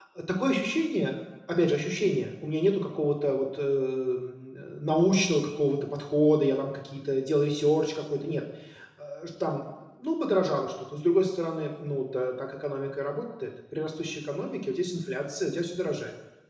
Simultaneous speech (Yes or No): No